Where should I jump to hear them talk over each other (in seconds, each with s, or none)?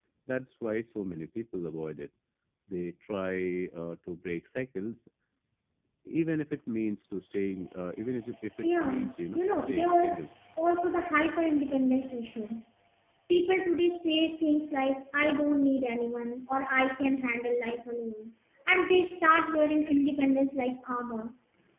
8.6 s